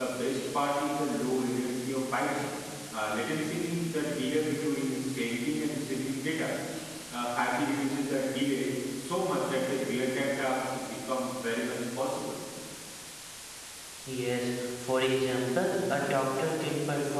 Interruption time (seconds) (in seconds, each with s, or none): none